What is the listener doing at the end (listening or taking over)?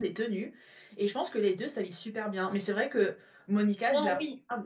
listening